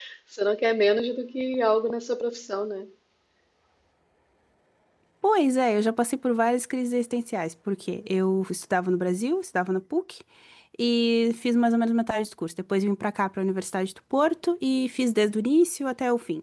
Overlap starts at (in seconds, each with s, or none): none